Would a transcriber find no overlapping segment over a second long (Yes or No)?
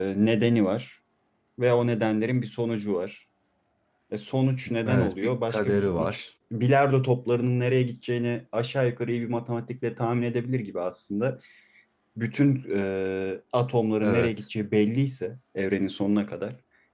No